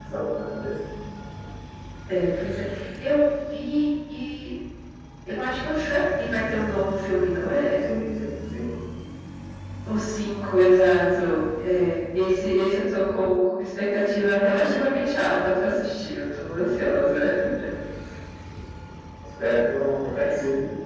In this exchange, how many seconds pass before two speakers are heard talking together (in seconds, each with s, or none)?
none